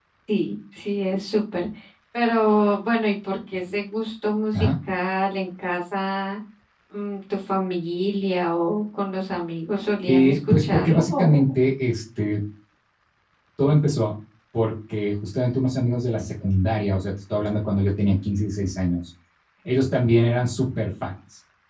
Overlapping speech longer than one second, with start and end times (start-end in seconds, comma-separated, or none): 10.1-11.4